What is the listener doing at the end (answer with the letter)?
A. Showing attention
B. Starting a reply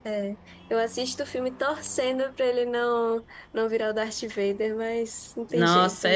B